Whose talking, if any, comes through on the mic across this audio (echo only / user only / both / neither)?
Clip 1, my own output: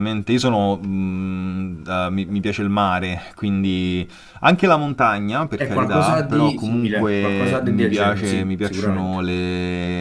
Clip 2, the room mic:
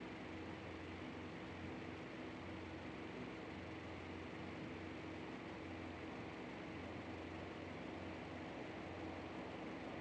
neither